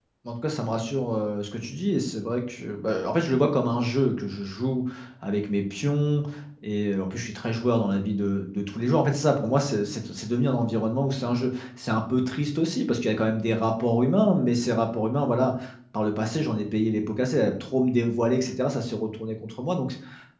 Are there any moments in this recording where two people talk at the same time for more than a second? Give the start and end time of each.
none

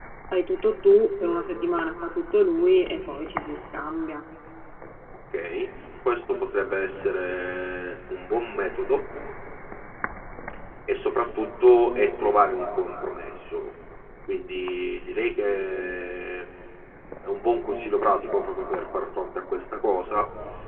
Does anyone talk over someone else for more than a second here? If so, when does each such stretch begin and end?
none

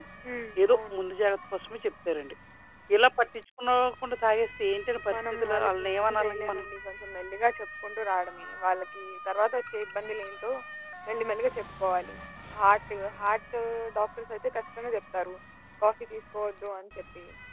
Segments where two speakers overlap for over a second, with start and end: 5.1-6.7

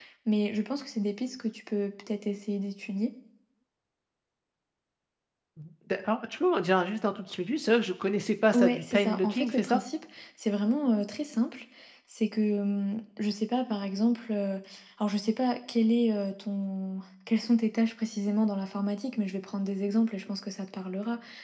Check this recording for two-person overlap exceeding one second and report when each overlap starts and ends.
8.5-9.8

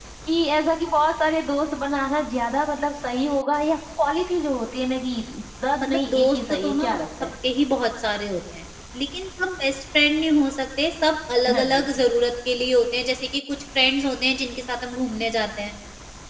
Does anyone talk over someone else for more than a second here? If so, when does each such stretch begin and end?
5.8-7.3

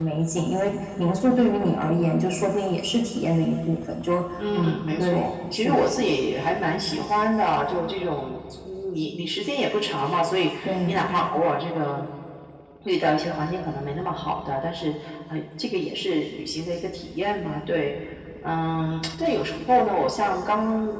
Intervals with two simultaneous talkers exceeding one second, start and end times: 4.5-5.8

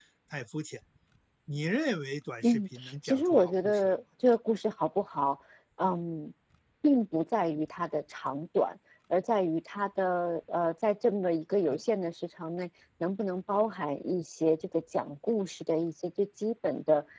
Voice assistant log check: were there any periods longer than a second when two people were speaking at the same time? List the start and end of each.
2.4-4.0

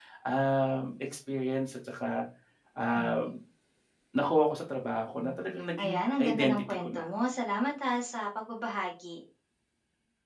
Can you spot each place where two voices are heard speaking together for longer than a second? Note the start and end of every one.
5.8-7.0

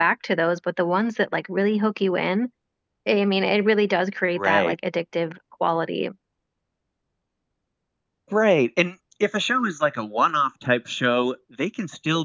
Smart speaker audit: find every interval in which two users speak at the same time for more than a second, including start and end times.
none

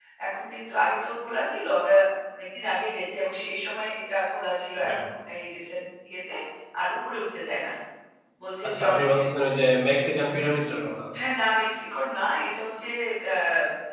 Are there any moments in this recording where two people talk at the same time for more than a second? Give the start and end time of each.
none

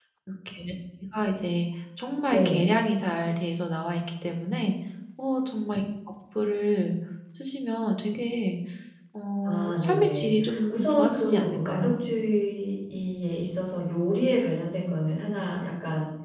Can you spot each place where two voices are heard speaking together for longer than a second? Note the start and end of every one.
9.4-11.9

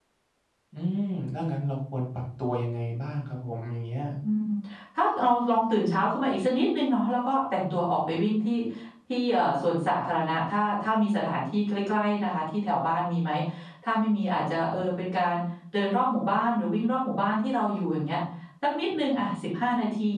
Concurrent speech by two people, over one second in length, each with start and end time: none

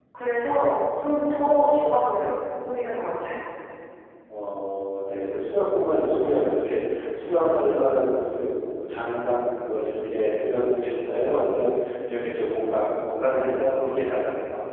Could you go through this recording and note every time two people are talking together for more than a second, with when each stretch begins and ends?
none

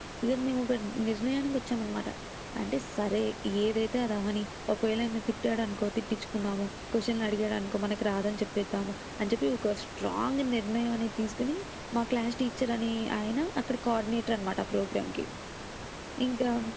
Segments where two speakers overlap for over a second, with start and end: none

